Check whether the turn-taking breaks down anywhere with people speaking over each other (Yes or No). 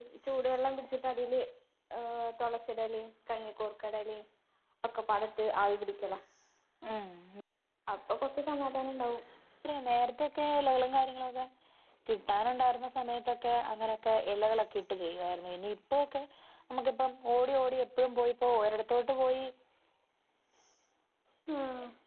No